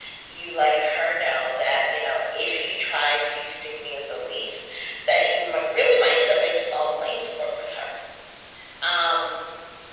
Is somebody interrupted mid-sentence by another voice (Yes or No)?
No